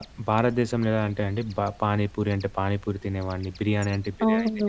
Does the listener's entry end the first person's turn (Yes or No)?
Yes